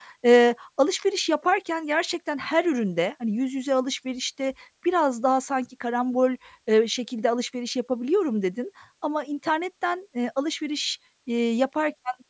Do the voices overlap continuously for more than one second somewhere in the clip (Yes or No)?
No